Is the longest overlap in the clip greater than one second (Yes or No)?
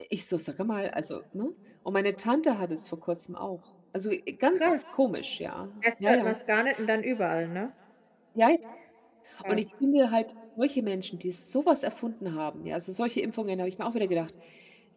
No